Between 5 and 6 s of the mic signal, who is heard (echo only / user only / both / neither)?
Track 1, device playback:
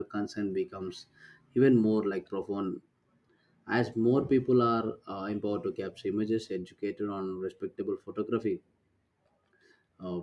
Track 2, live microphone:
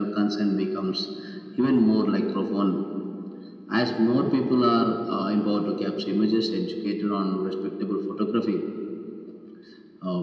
echo only